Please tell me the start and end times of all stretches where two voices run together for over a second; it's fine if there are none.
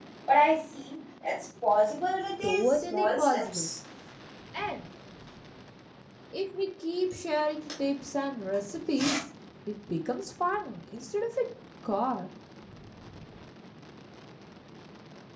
2.4-3.7

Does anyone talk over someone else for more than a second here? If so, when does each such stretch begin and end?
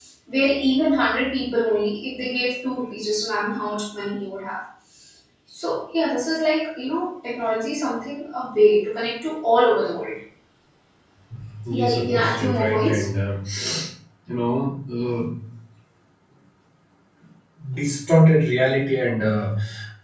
11.7-13.1

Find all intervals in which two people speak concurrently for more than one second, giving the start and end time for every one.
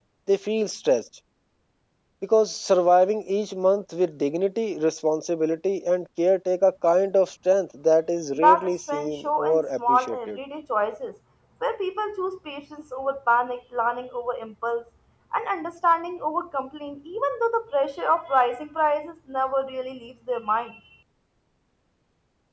8.3-10.3

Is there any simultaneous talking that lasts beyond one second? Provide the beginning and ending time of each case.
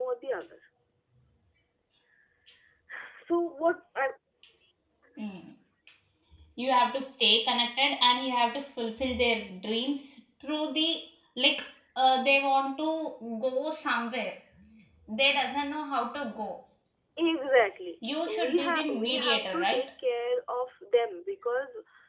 18.3-19.8

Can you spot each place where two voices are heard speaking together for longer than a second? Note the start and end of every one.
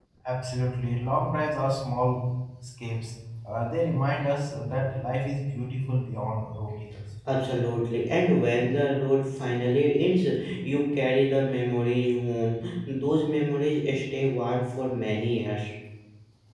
none

